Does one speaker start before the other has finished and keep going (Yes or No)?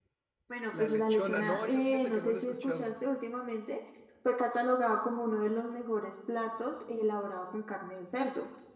Yes